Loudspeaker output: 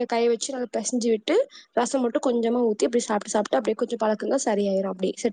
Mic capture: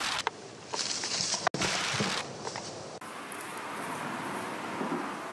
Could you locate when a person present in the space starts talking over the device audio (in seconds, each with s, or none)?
none